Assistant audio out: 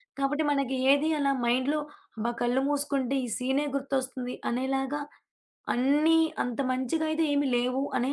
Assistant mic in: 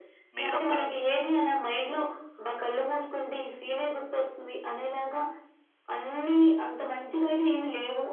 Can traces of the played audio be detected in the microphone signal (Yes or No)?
Yes